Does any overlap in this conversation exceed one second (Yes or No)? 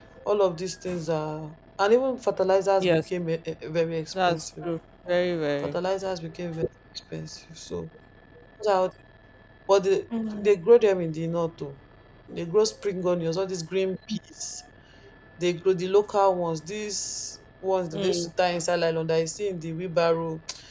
No